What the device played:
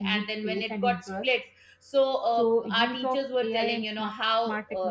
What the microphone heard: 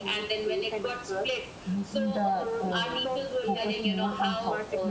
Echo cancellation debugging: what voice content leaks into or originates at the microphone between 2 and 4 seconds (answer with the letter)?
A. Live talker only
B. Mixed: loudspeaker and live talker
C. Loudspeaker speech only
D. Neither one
B